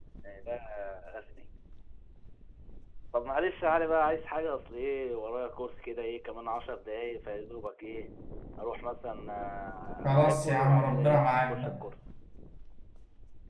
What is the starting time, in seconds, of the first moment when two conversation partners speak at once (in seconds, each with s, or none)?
10.0 s